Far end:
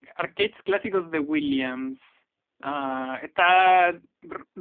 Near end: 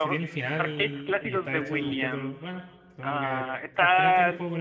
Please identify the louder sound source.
echo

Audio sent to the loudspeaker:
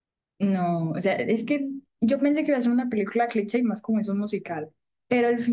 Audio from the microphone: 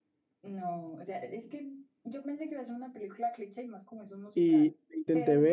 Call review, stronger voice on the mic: user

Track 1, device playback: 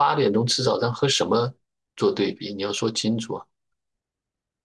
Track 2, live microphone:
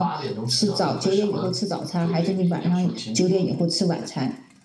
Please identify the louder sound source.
user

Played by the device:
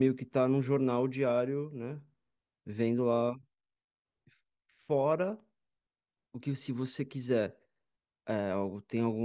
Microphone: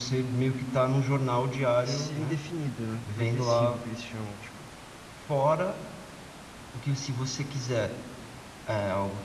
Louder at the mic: echo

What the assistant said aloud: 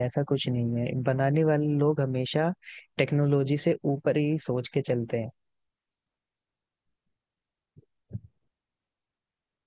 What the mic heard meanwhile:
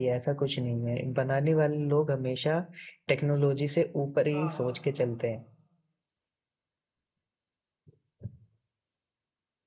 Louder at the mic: echo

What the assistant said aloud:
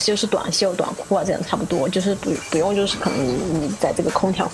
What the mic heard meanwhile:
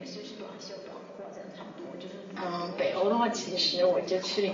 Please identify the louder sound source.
user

